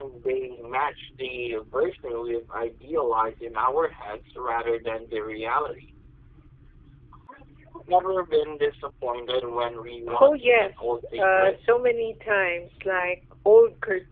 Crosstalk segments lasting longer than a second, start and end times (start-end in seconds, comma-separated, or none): 10.2-11.6